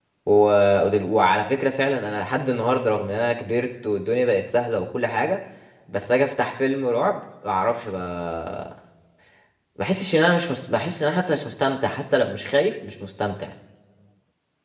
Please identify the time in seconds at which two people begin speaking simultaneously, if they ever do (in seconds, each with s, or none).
none